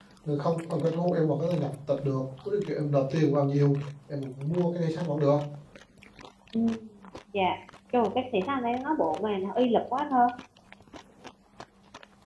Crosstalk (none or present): none